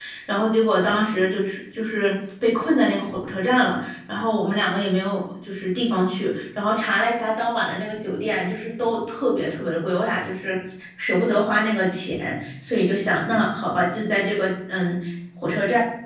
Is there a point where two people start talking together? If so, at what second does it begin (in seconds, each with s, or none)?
none